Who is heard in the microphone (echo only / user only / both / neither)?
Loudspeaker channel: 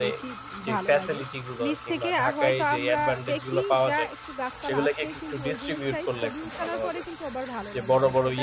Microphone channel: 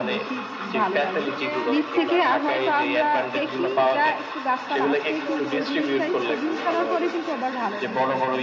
both